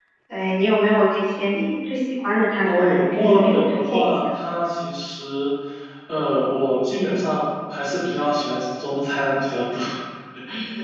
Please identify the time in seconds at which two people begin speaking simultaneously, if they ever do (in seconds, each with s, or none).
2.6 s